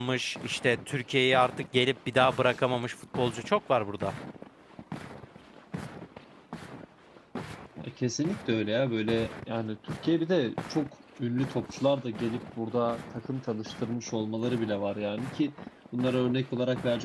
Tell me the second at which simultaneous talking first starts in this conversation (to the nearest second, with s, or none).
none